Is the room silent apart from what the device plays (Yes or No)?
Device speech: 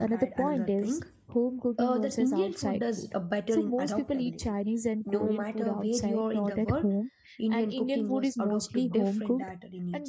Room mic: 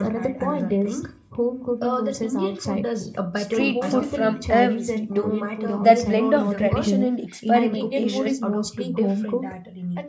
No